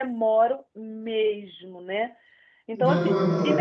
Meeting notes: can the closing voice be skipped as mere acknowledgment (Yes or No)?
Yes